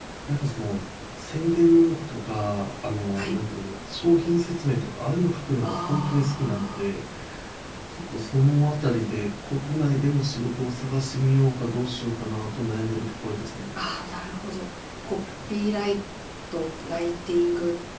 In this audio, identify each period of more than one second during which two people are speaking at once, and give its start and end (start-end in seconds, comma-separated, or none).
5.6-6.9